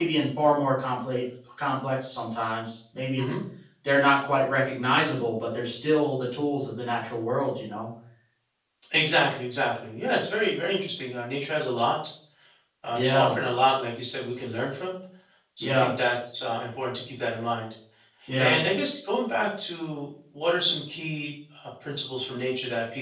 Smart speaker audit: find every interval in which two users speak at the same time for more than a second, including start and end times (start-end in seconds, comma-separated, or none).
none